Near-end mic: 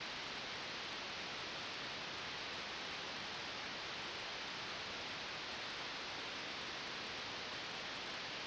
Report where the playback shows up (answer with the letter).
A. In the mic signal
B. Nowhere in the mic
B